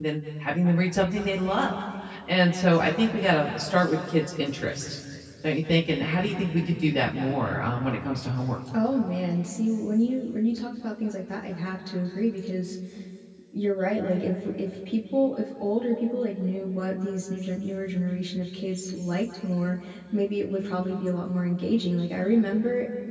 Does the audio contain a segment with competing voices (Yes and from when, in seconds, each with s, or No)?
No